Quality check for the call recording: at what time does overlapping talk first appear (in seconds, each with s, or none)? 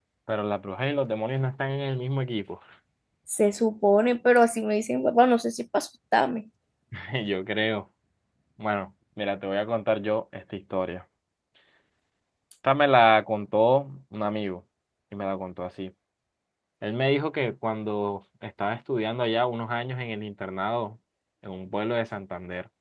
none